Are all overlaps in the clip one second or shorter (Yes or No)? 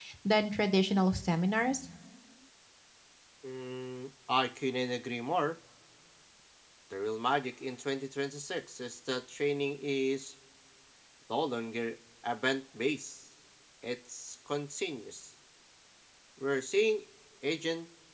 Yes